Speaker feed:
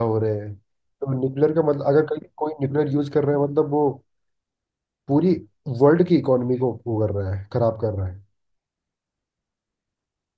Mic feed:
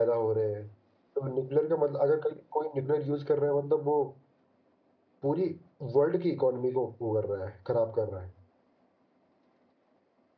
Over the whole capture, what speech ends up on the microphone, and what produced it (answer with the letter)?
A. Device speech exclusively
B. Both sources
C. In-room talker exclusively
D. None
A